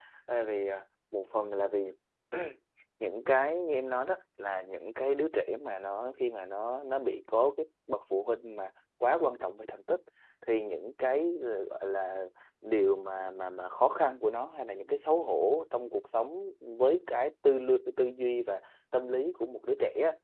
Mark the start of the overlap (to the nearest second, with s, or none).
none